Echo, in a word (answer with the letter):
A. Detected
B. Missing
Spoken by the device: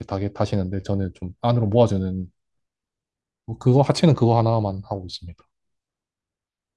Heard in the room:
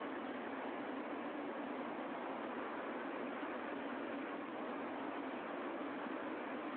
B